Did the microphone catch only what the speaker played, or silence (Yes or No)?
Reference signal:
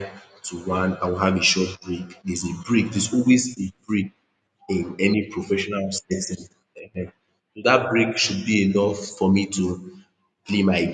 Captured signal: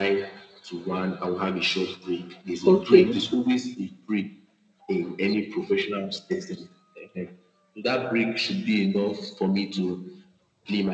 No